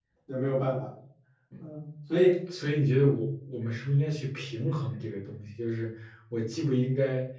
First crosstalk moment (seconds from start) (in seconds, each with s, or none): none